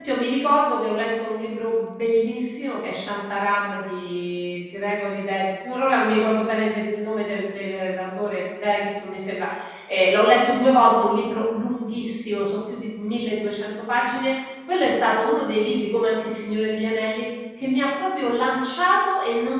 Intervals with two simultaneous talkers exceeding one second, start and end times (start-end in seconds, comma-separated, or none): none